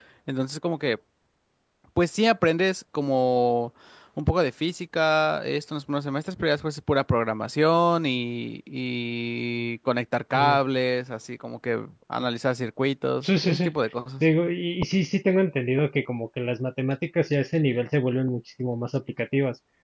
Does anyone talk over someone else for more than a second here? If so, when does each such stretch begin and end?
none

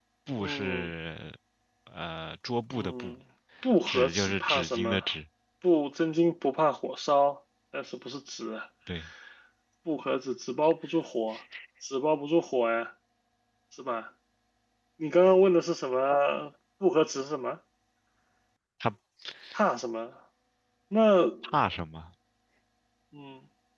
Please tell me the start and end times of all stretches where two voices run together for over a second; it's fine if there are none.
3.9-5.1

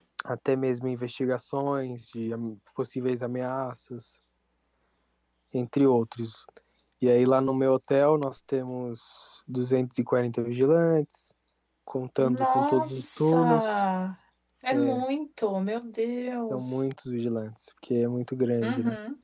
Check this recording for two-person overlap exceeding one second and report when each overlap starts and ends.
12.2-13.7

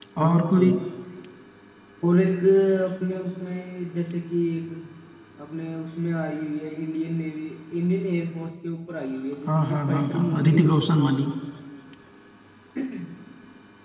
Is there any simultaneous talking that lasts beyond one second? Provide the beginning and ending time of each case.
9.5-10.7

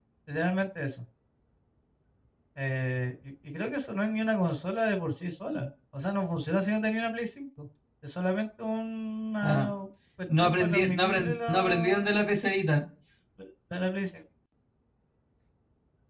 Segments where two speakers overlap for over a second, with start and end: 10.4-12.1

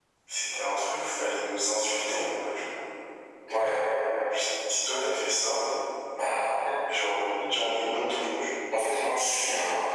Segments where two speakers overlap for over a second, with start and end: none

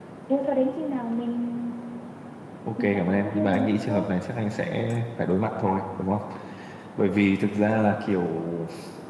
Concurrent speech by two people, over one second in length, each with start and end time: 2.8-4.1

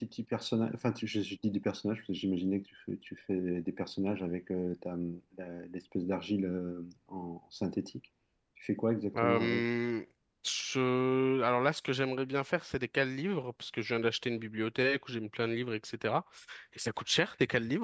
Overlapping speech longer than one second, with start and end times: none

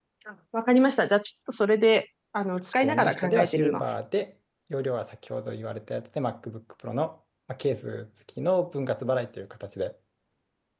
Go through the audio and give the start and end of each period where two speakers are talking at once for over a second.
2.6-3.8

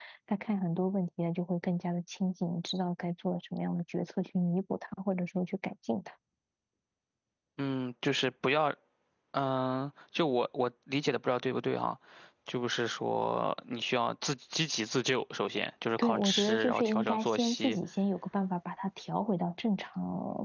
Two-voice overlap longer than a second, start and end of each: 16.0-17.8

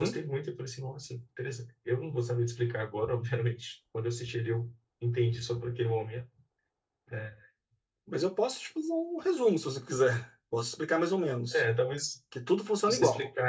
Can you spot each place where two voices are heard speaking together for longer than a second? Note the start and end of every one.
none

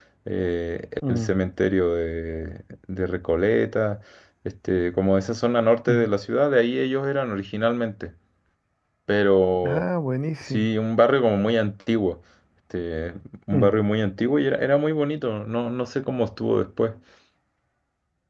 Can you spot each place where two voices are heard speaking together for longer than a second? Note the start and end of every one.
none

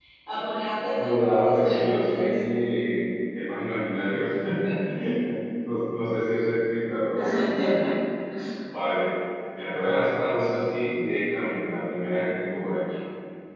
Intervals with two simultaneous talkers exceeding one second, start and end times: 1.0-2.3

